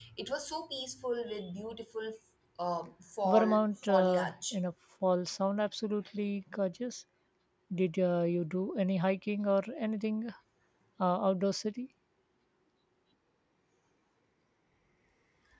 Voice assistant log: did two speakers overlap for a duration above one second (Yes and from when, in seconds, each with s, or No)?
Yes, from 3.2 s